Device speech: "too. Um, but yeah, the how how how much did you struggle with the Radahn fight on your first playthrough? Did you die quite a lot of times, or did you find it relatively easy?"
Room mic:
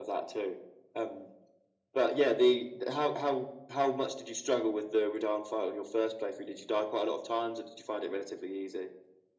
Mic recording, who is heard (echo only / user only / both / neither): echo only